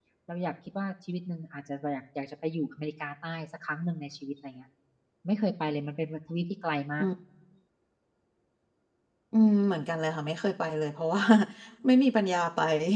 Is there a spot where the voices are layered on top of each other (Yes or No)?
No